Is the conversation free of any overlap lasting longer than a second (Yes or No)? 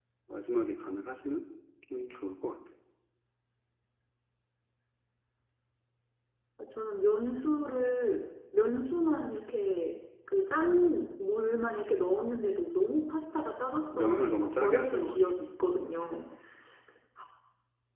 No